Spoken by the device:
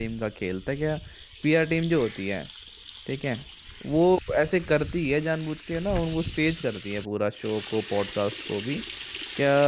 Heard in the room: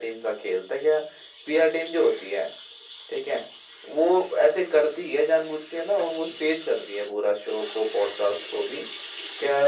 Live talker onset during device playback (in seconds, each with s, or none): none